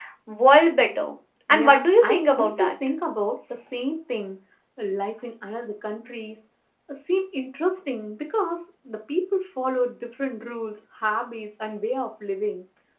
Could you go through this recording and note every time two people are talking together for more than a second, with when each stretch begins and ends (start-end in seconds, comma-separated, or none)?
1.5-2.7